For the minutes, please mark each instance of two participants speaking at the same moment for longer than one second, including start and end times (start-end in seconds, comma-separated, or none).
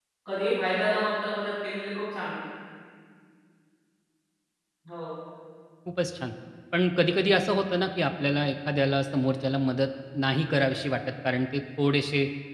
none